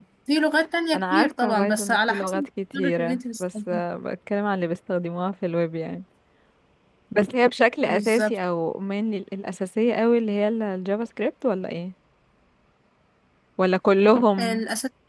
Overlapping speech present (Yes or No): Yes